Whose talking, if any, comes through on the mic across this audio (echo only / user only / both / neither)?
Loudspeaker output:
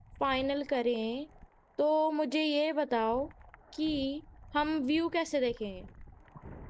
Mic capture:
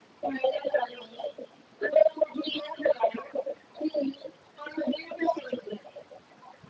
echo only